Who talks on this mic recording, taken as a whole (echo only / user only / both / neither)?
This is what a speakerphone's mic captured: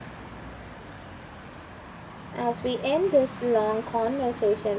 user only